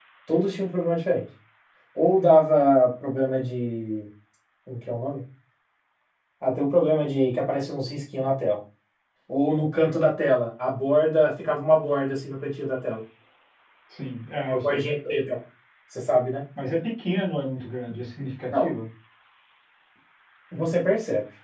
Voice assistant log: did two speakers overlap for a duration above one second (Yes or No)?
No